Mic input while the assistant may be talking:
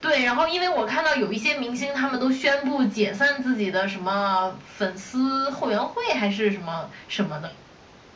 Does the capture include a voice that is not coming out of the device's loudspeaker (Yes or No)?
No